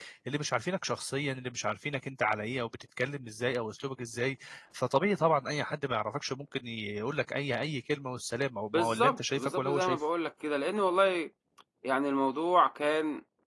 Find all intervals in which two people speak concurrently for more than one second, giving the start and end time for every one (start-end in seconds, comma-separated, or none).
8.7-10.0